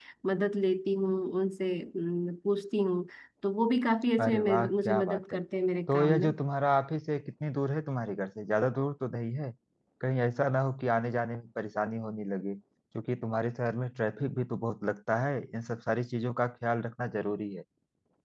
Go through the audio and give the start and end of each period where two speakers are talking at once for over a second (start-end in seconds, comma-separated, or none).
4.2-5.4